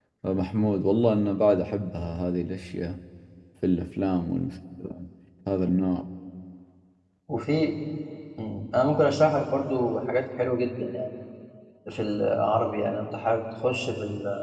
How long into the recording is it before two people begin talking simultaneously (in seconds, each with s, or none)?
none